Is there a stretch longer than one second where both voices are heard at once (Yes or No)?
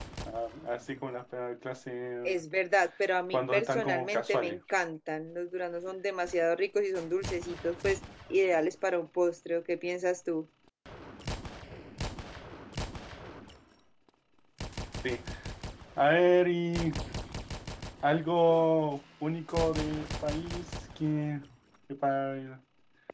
Yes